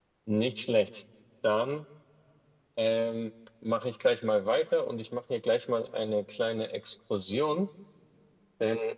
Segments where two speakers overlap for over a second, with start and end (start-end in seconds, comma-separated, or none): none